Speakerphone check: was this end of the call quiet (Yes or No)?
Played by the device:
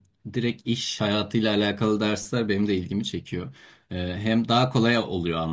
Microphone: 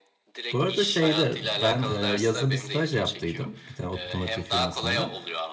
No